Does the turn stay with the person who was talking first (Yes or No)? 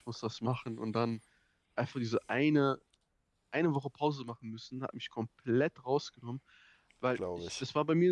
Yes